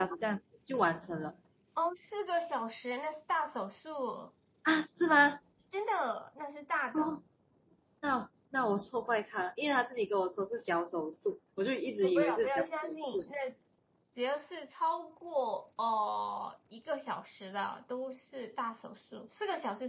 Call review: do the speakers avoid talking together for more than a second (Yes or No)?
No